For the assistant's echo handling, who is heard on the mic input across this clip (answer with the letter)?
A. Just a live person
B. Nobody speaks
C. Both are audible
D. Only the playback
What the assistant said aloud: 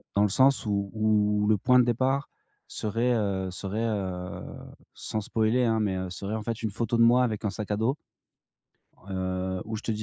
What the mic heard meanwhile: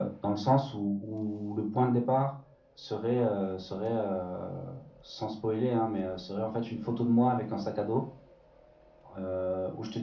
D